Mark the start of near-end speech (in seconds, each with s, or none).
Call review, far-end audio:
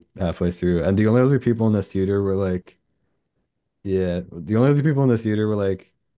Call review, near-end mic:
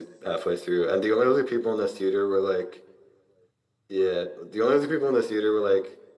none